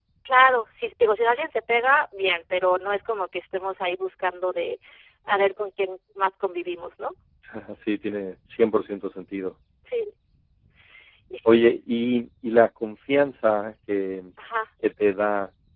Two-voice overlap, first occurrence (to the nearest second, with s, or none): none